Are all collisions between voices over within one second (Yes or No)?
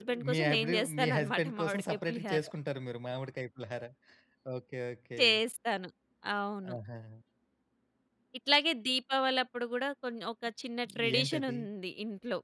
No